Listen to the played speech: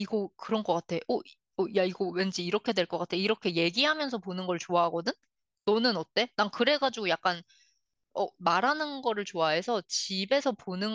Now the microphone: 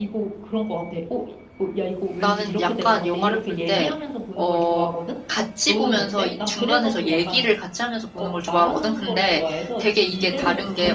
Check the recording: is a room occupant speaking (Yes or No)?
Yes